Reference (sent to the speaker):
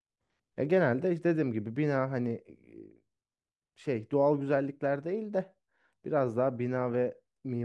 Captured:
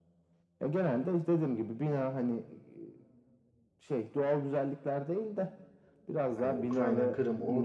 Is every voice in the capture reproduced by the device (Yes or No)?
No